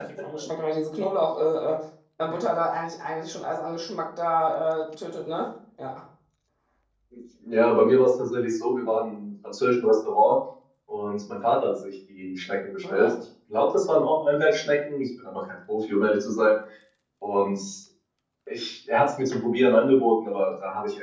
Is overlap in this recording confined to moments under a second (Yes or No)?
Yes